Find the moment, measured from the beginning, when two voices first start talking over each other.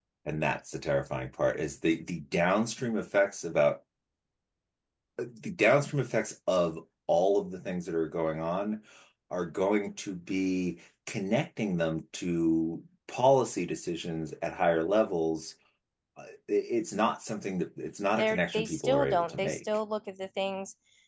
18.2 s

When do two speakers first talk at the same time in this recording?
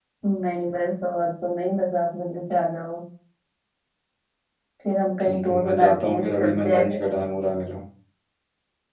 5.2 s

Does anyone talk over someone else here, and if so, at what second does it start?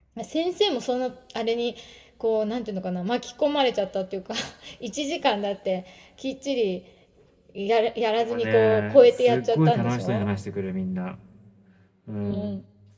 8.2 s

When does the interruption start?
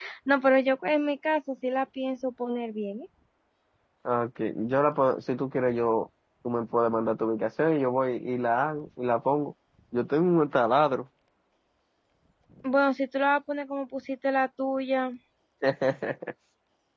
none

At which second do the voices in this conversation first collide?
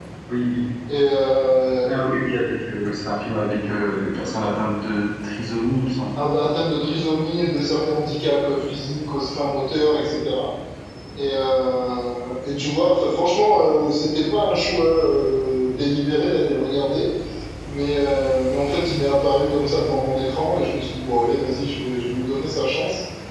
none

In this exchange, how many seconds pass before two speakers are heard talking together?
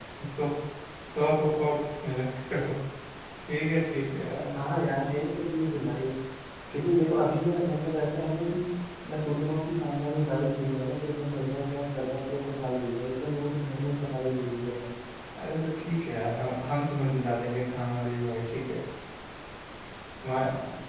none

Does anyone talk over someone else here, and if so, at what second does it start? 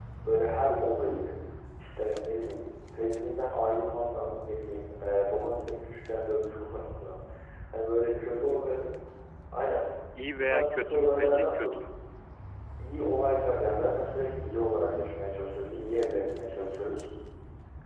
10.4 s

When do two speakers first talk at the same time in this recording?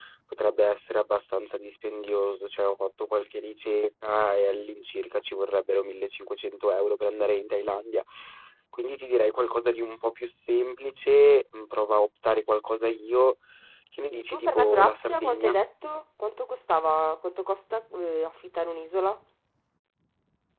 14.1 s

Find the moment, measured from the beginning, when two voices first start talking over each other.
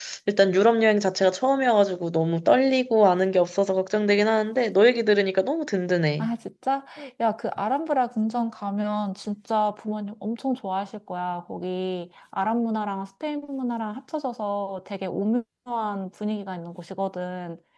none

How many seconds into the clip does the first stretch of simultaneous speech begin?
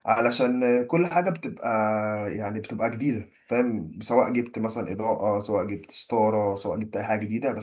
none

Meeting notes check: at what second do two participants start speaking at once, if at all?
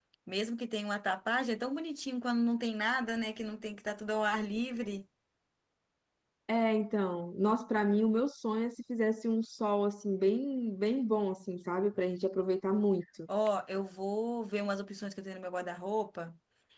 none

